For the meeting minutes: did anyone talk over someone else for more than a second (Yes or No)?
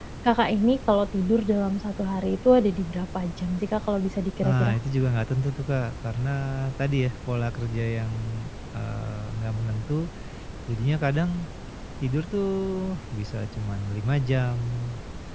No